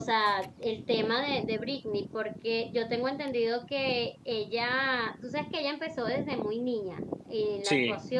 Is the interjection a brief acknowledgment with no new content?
Yes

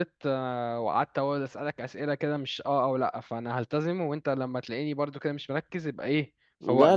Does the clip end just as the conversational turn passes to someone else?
Yes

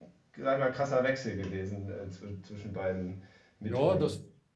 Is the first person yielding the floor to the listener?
Yes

